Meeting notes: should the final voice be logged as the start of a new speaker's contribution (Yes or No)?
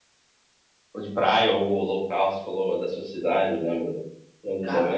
Yes